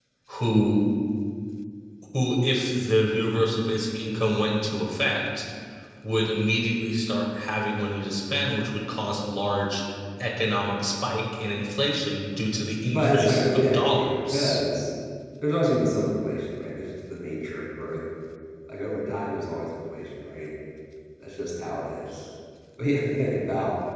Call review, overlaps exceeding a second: present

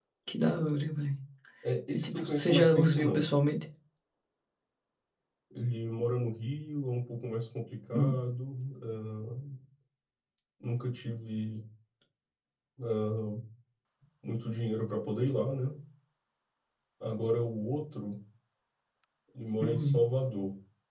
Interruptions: present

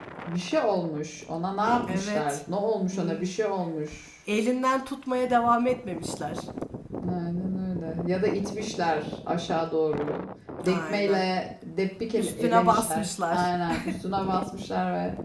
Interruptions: present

